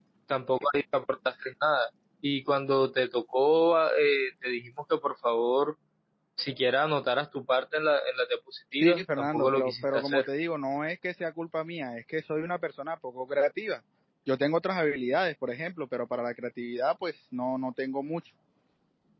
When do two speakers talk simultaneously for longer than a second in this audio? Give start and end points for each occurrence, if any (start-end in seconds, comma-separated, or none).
8.8-10.3